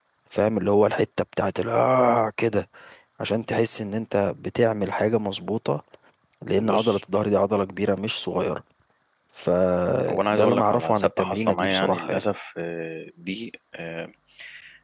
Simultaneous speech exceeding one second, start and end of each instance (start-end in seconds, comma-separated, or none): 10.1-12.2